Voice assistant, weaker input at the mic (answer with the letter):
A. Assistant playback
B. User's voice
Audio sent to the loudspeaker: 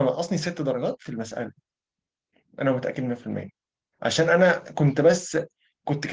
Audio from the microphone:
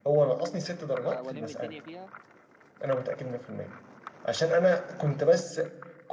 B